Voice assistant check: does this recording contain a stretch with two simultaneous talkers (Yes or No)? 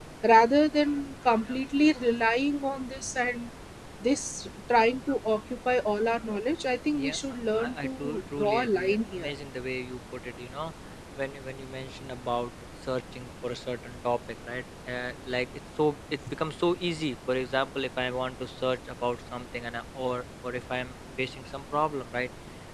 Yes